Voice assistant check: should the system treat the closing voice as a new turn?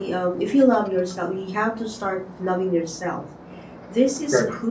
No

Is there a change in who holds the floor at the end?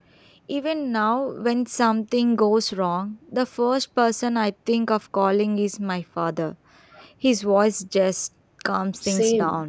Yes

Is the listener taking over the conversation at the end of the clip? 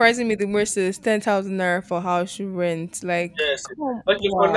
Yes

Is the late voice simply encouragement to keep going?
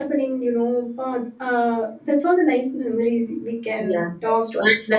No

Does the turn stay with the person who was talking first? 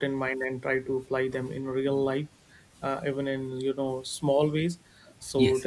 Yes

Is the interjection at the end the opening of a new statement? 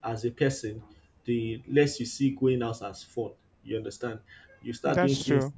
No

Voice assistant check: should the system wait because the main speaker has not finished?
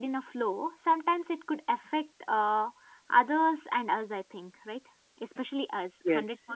Yes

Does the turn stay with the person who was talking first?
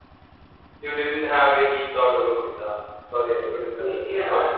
No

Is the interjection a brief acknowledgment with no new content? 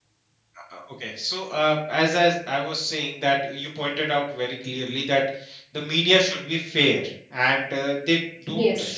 Yes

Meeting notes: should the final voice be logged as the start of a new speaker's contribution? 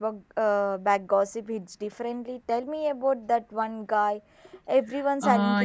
Yes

